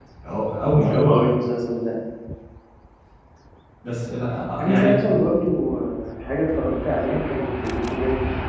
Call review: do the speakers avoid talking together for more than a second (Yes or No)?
Yes